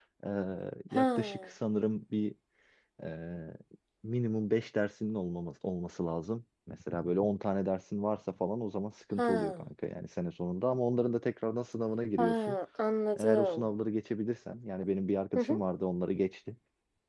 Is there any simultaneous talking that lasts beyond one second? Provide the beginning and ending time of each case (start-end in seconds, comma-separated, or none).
none